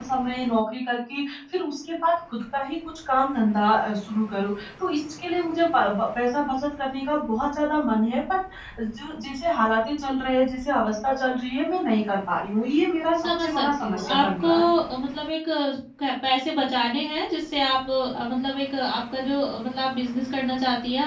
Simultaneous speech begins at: 13.2 s

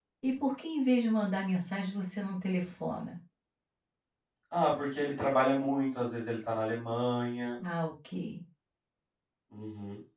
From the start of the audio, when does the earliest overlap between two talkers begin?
none

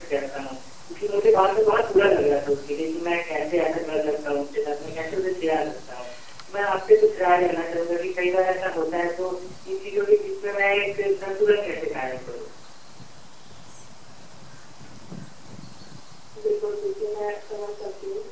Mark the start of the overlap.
none

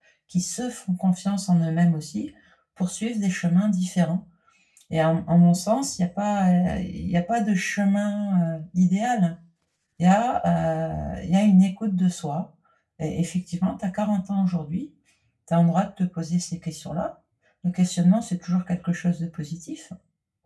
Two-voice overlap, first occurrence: none

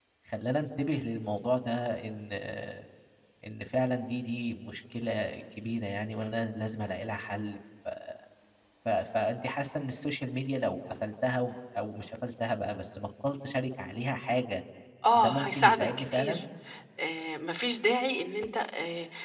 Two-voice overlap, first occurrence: 15.2 s

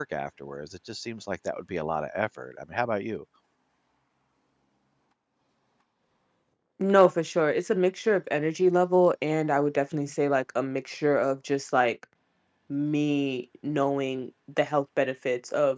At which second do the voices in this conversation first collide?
none

